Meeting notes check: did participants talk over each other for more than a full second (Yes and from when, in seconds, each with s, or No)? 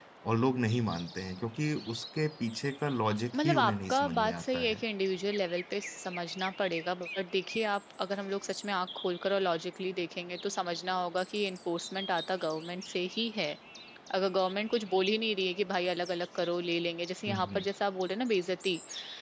Yes, from 3.4 s